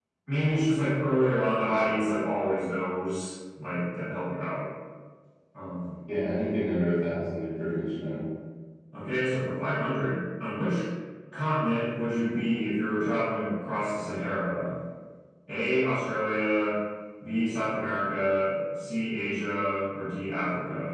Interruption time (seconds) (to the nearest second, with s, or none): none